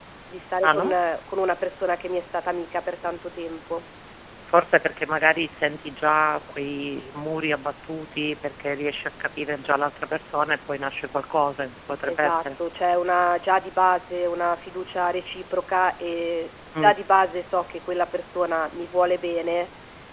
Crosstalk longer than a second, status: none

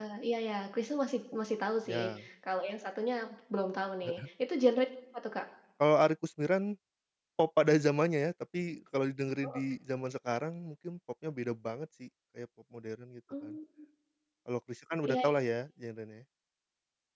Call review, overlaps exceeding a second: none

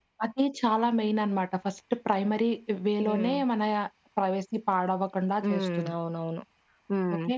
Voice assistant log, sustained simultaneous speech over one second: none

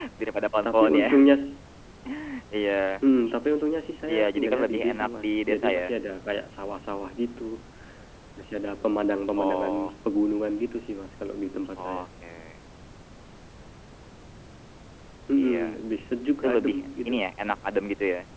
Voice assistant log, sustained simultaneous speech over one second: present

